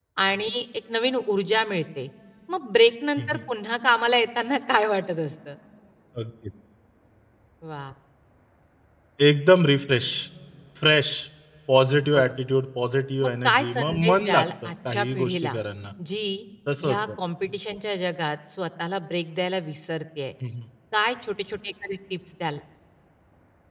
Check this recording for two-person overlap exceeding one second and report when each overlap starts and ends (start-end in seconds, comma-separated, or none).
13.2-15.6